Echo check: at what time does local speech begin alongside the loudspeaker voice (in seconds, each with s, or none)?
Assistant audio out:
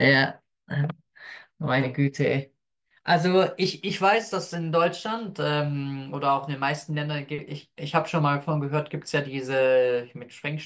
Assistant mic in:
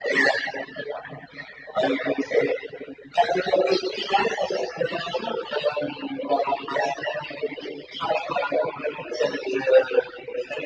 none